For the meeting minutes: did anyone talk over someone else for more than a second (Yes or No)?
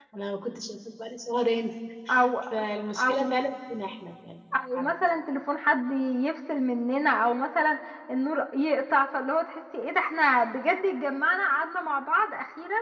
No